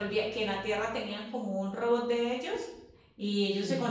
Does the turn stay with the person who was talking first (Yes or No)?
Yes